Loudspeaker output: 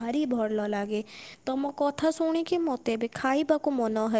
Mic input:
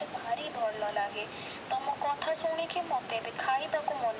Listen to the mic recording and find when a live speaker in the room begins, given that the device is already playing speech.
none

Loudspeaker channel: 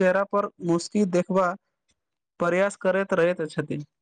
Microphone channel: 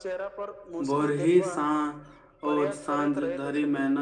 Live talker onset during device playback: 0.9 s

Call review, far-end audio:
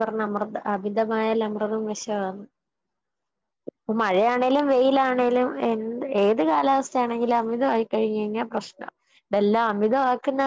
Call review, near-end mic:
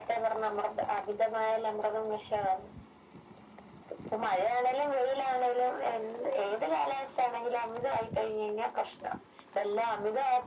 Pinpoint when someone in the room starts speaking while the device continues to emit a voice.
none

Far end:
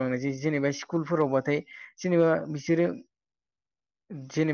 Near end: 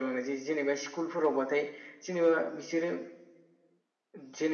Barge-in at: none

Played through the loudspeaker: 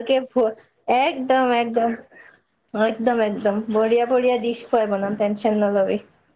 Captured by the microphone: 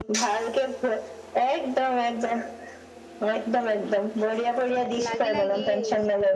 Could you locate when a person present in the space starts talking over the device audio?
5.1 s

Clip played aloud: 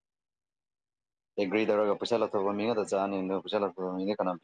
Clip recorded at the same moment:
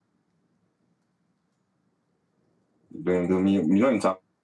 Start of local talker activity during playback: 3.0 s

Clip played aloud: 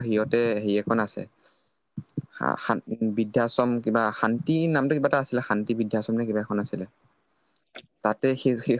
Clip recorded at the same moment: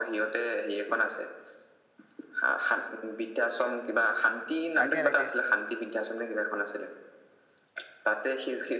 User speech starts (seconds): 4.8 s

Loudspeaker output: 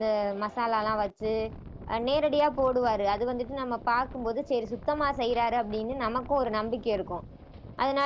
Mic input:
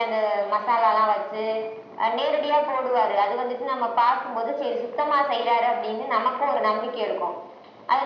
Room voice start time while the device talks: none

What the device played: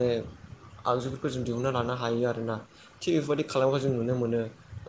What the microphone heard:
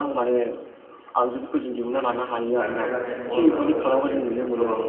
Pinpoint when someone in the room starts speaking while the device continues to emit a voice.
1.9 s

